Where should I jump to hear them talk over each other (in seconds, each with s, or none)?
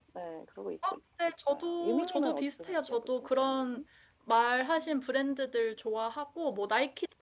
1.5 s